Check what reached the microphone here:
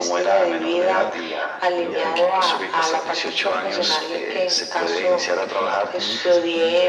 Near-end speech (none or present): present